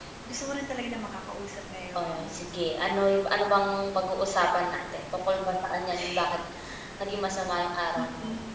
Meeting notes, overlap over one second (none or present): none